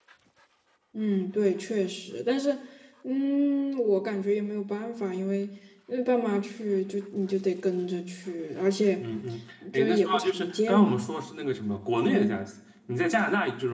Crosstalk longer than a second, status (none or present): present